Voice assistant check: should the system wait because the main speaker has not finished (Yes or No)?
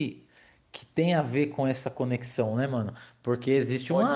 Yes